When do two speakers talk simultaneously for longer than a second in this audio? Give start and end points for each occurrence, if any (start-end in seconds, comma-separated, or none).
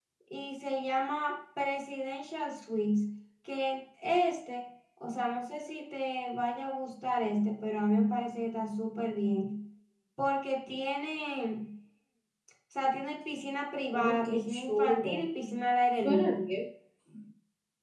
13.9-15.2